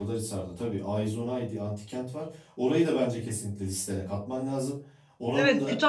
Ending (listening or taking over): taking over